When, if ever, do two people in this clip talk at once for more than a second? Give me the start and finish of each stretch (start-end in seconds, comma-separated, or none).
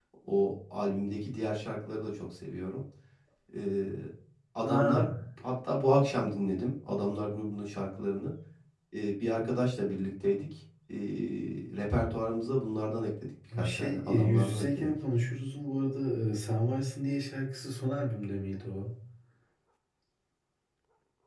13.6-14.9